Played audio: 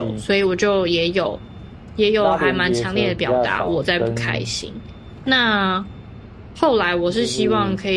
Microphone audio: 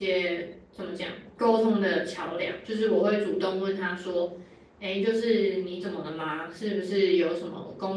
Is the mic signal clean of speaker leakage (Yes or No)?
Yes